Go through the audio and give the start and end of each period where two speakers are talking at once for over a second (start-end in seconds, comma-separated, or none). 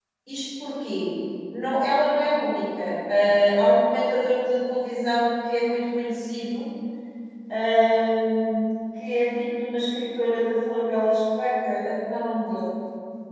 none